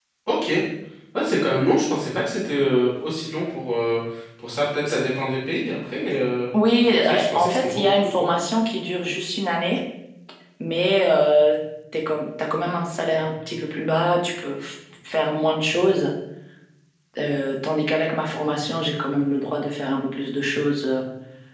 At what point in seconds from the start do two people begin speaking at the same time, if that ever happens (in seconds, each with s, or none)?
7.0 s